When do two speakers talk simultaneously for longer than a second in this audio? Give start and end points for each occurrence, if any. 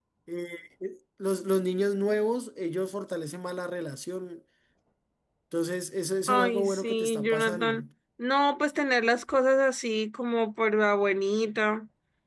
6.3-7.9

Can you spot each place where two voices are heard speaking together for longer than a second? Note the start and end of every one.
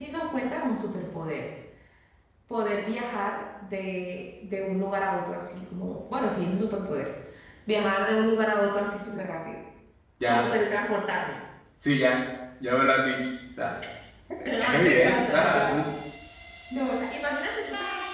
14.4-15.8

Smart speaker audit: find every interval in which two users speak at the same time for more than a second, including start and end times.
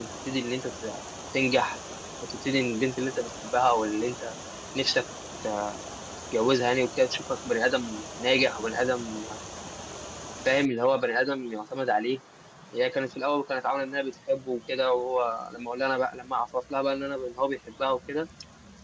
none

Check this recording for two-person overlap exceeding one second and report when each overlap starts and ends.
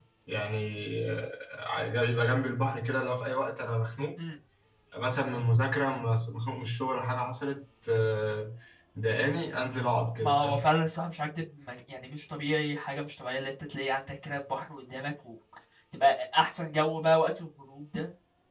none

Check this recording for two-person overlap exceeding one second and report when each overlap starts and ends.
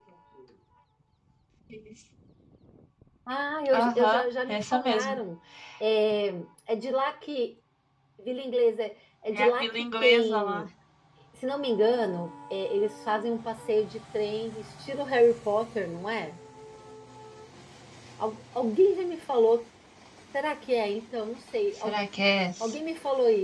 3.7-5.2, 9.4-10.6

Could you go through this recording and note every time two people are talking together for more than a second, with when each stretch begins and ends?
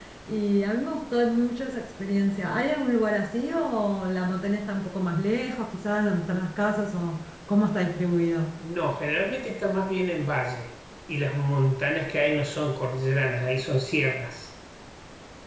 none

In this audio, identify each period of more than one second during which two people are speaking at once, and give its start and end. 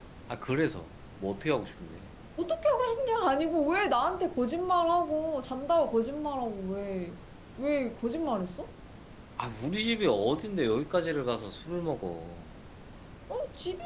none

